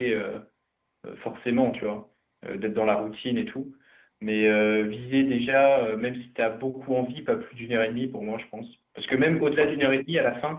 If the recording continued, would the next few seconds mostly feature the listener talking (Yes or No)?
No